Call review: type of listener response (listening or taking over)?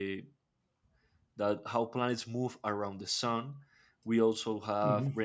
listening